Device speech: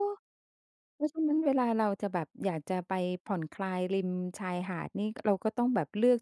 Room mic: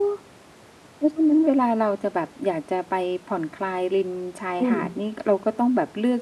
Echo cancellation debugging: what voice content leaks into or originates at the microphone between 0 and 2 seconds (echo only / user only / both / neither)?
echo only